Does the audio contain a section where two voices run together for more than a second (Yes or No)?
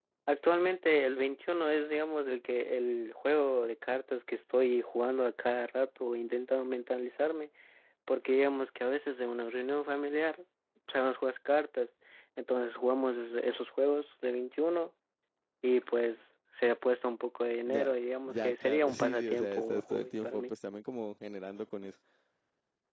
Yes